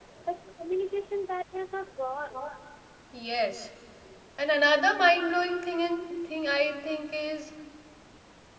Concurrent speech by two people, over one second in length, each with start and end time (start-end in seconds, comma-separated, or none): none